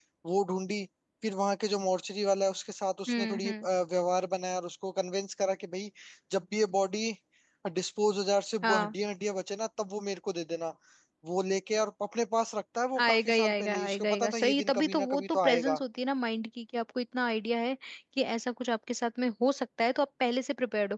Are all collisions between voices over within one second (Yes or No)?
No